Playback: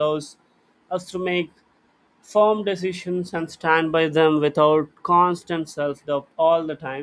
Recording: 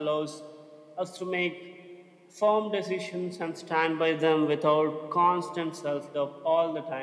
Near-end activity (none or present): none